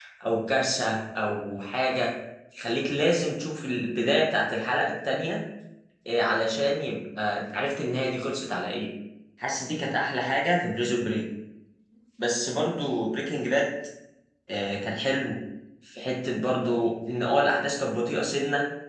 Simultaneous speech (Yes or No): No